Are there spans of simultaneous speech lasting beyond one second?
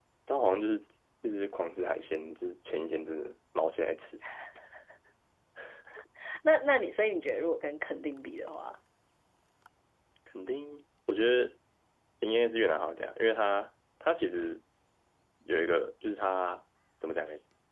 No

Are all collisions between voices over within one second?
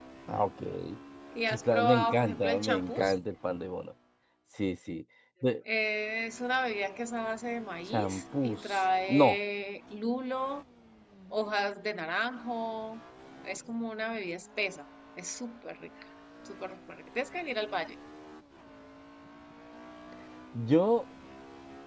No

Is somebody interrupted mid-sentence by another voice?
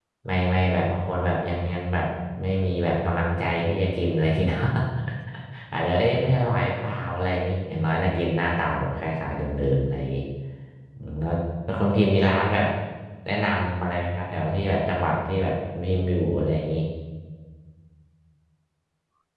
No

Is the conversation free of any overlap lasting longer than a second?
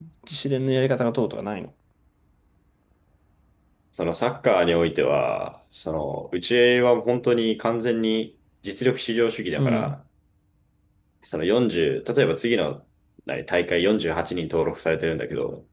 Yes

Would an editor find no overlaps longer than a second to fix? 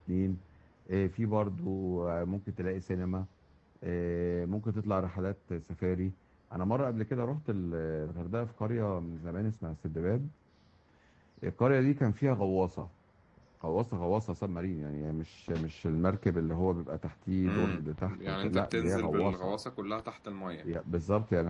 No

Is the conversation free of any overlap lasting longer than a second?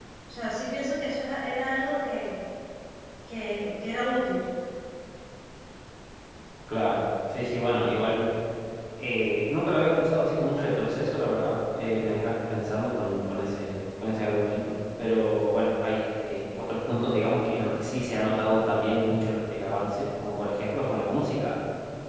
Yes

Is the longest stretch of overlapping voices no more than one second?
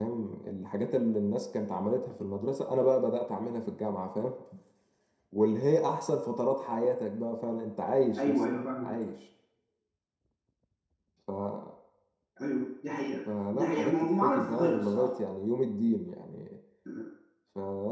No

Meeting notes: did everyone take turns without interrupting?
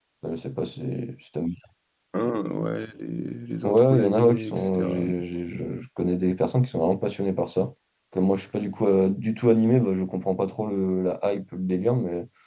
No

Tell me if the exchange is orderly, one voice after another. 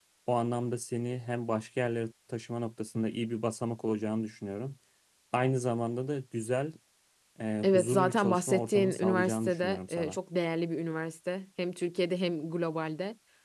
No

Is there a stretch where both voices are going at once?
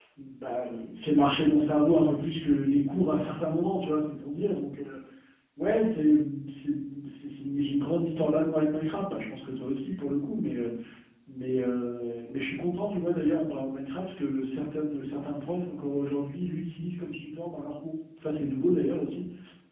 No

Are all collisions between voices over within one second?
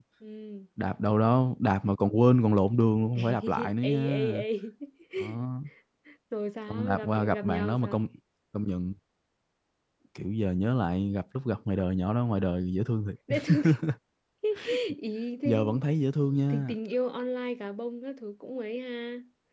No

